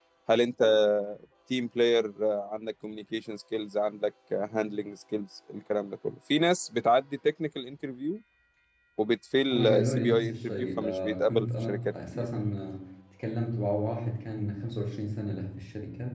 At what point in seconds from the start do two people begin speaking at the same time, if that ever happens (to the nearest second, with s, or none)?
10 s